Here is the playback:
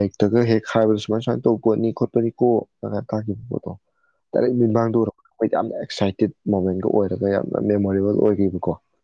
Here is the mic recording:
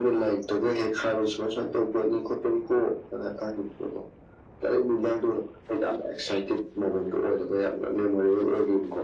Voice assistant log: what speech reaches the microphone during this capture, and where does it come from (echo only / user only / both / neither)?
echo only